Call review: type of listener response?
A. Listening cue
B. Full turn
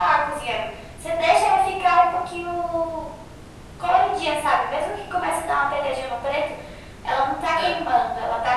A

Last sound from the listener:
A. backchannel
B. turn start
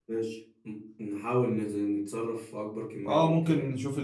B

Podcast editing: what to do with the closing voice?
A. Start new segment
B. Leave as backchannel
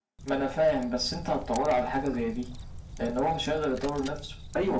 A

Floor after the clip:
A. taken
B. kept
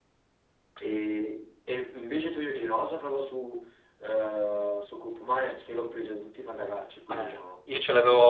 A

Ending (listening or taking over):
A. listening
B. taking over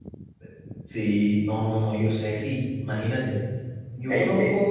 A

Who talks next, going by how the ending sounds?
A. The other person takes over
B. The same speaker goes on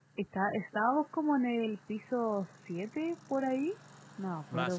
A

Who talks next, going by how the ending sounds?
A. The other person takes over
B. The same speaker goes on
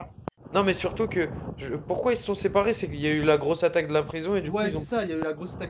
A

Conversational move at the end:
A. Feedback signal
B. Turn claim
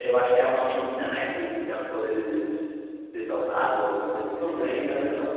B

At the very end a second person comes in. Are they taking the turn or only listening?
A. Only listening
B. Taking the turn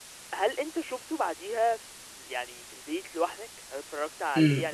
B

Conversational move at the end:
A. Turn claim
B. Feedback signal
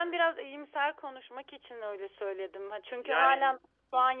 B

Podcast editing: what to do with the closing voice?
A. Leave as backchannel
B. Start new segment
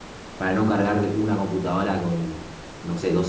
A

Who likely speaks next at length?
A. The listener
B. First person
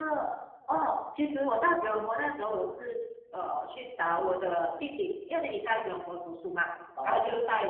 B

